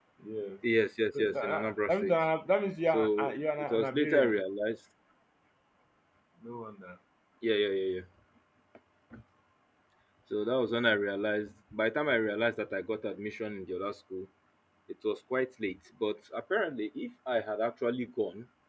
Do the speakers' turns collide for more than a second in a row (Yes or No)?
Yes